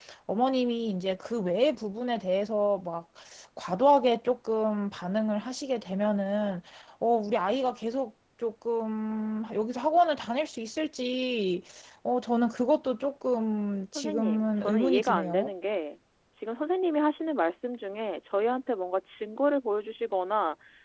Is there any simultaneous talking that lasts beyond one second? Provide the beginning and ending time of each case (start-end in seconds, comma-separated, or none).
13.9-15.5